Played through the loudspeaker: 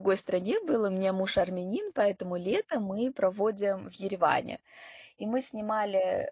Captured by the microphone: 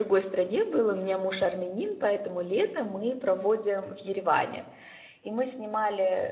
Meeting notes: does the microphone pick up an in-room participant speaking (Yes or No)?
No